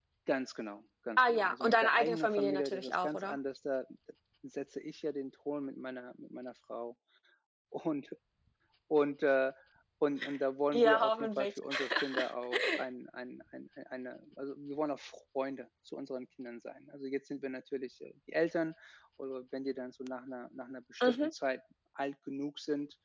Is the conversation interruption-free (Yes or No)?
No